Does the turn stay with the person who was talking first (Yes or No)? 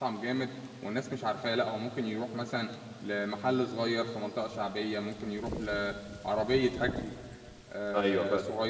Yes